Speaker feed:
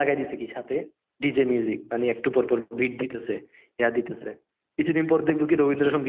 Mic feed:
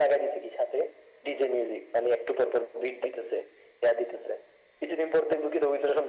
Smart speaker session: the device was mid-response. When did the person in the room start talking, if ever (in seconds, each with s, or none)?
none